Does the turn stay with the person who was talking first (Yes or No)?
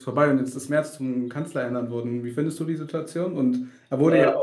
Yes